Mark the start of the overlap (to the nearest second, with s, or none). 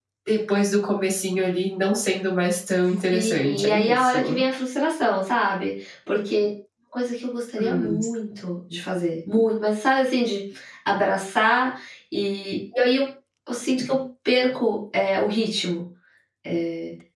3 s